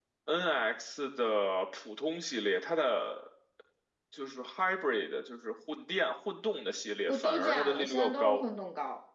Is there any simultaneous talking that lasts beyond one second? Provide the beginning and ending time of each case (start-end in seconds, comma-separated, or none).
7.1-8.4